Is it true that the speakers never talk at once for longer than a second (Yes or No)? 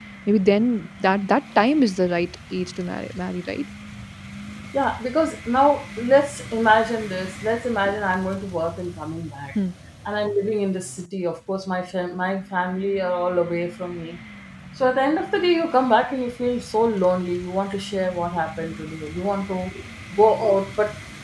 Yes